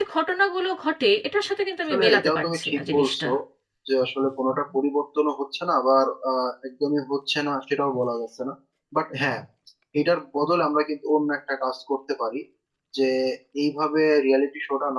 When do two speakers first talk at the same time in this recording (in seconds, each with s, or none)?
1.9 s